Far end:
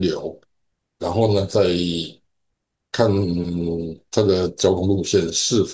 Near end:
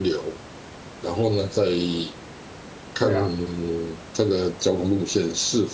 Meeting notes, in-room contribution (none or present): present